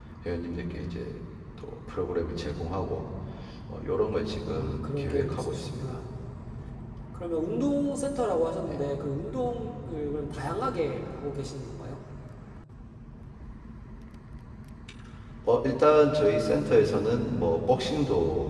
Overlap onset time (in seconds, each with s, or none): 4.5 s